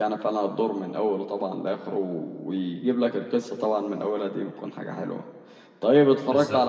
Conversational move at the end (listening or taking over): listening